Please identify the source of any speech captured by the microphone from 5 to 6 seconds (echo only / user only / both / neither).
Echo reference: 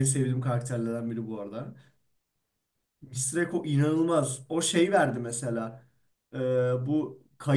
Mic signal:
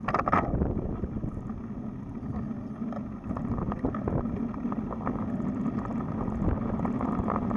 neither